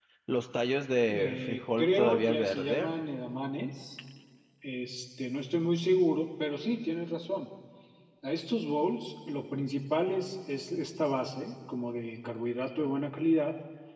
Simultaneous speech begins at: 1.1 s

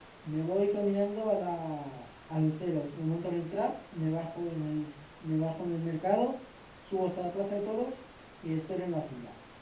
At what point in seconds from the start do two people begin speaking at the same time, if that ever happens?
none

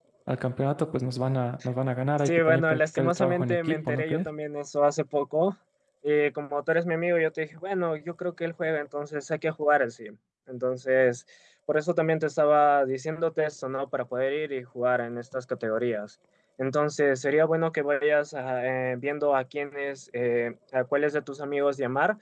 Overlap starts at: 2.2 s

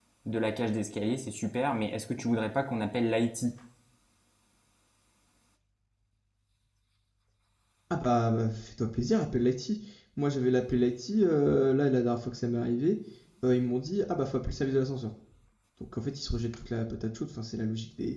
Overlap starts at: none

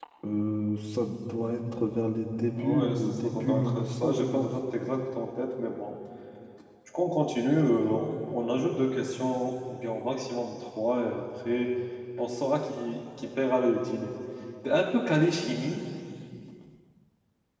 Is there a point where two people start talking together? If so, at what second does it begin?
2.6 s

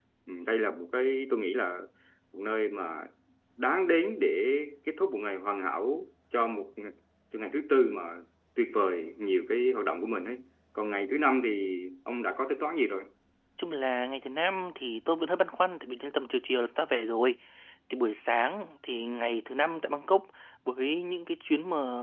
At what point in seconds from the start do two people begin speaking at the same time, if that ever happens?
none

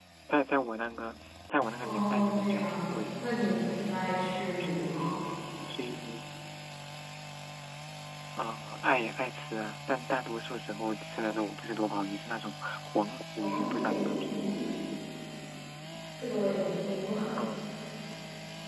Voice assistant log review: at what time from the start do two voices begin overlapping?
1.8 s

